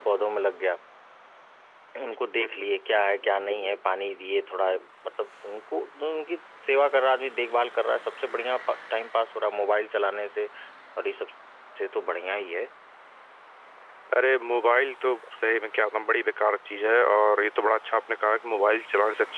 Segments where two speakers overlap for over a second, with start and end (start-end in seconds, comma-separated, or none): none